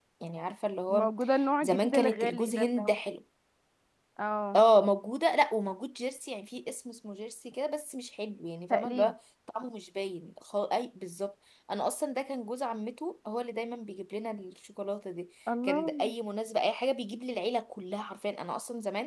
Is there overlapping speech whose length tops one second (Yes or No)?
Yes